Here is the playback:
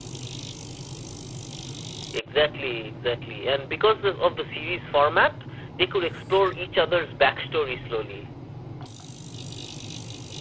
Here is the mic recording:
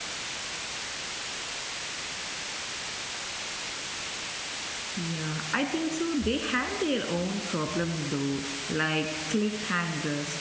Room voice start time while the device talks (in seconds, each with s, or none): 5.0 s